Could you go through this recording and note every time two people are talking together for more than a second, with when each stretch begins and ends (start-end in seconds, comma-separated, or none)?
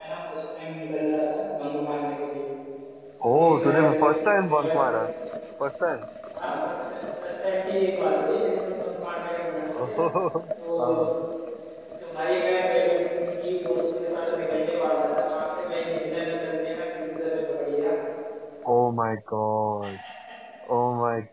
3.4-4.9